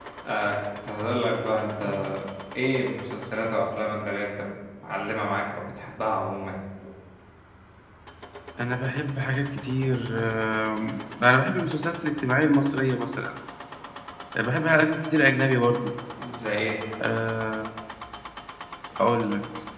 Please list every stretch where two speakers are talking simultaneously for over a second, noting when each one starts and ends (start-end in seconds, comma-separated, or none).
none